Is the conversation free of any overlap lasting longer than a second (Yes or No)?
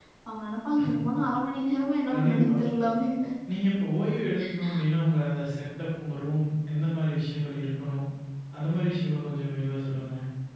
Yes